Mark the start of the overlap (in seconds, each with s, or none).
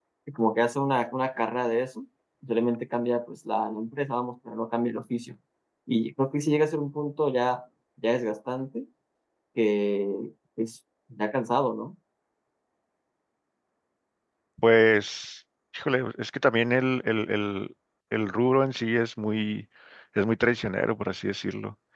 none